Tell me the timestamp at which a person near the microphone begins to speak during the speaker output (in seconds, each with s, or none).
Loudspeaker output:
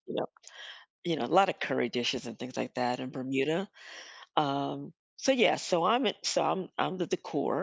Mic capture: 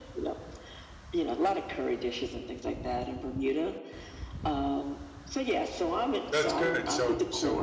6.3 s